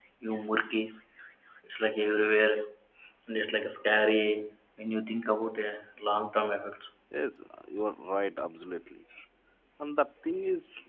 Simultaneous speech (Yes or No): No